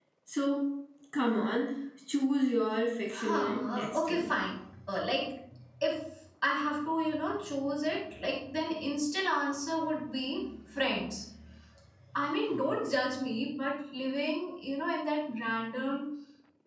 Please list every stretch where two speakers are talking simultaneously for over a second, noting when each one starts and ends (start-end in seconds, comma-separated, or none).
3.1-4.3